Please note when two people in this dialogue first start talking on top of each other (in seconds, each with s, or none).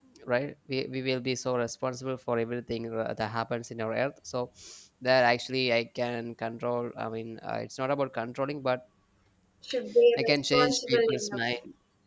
10.2 s